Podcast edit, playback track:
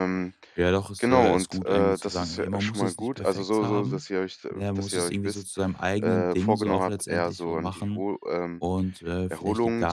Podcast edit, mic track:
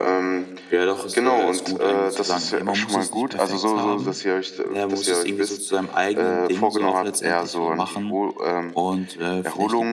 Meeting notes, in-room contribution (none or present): none